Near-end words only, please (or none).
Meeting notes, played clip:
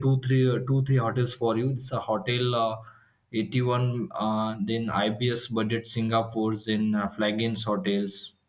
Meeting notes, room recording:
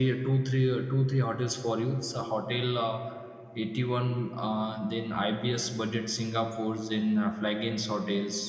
none